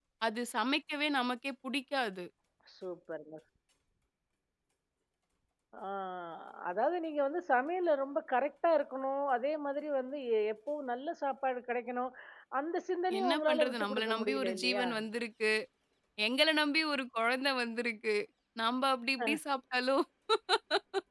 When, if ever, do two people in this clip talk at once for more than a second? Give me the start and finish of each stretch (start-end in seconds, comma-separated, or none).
13.2-14.9